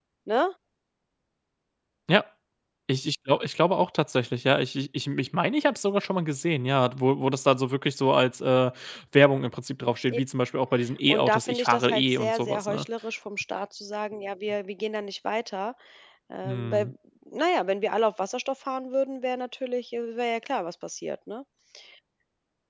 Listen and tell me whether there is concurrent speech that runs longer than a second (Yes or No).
Yes